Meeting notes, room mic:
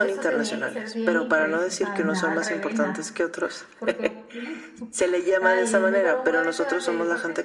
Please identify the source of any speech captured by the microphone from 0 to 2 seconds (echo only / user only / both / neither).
both